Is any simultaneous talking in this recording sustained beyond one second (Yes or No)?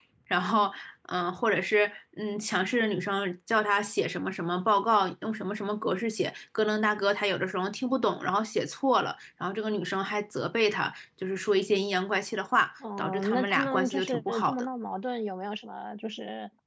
Yes